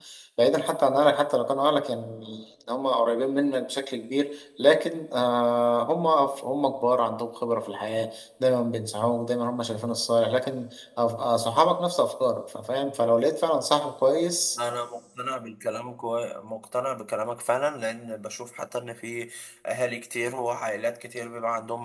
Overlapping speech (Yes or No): No